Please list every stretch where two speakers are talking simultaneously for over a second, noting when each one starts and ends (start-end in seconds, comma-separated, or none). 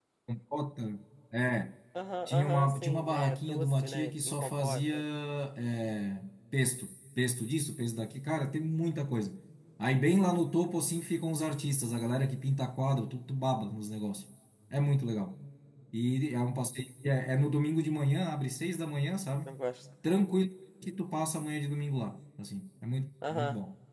2.3-4.9